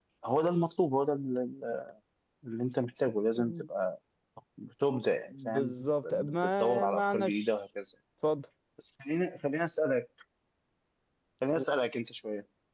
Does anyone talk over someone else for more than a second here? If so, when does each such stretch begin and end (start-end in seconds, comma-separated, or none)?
6.1-7.5